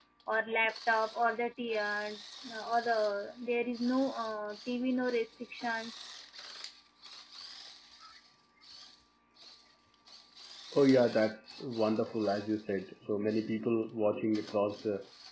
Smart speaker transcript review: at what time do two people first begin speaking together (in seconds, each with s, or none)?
none